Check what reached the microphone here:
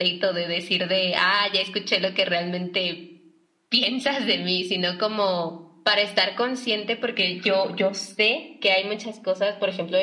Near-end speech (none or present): none